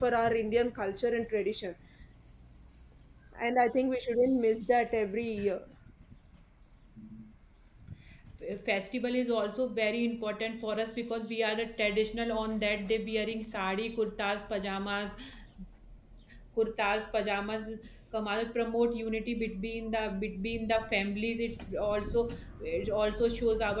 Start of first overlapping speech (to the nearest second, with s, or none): none